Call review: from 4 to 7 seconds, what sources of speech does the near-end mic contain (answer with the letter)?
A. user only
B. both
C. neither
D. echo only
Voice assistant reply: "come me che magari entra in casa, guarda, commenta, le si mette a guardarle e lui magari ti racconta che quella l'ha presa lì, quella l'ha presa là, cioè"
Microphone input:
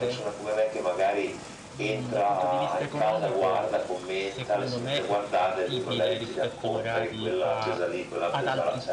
B